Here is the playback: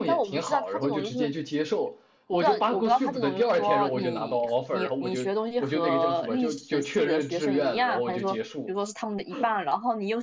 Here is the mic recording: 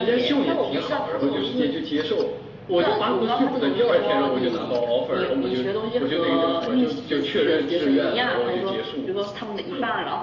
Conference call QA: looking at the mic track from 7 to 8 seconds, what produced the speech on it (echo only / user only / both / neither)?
echo only